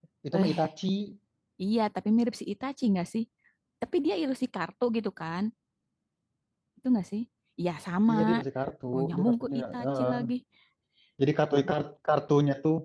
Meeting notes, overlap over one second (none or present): present